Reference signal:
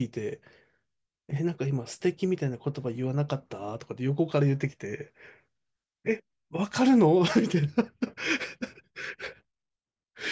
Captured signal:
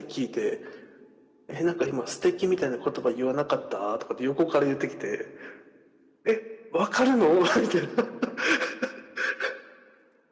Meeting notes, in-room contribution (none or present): none